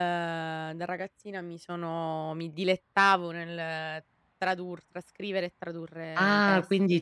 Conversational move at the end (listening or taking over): taking over